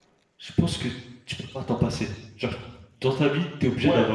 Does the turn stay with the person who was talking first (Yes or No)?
No